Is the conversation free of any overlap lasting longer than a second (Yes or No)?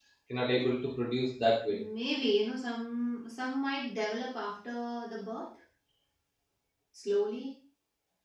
Yes